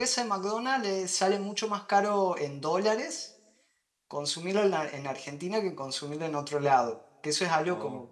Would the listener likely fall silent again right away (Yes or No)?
Yes